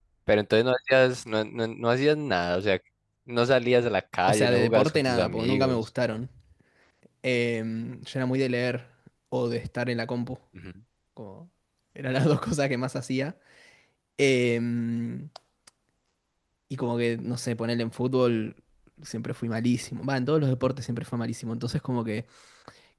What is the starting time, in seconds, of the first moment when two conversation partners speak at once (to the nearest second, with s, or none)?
4 s